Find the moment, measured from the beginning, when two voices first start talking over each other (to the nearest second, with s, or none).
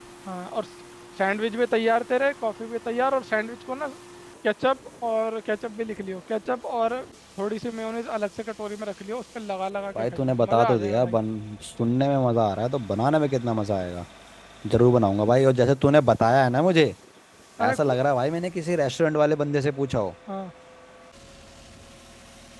10 s